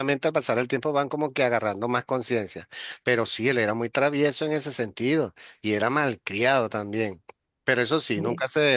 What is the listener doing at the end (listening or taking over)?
listening